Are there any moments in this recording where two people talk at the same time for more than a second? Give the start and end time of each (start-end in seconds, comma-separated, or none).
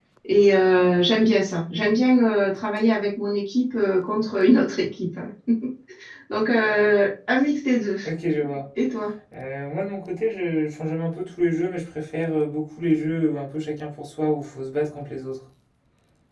none